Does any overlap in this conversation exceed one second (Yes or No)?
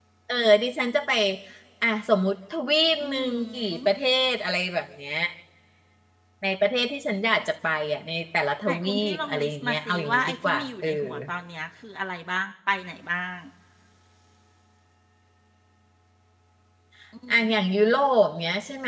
Yes